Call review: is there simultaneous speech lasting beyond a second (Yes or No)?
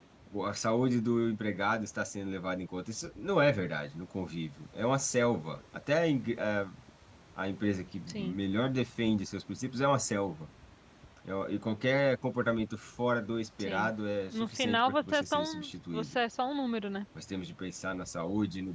Yes